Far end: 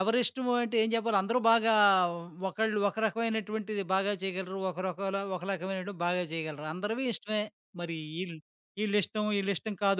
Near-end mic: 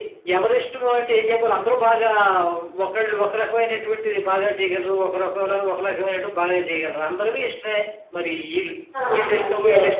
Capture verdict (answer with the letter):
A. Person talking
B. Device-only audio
A